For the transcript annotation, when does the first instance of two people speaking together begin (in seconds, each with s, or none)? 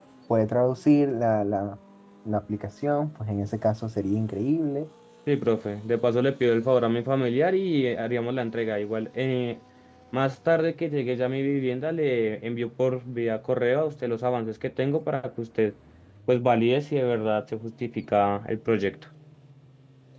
none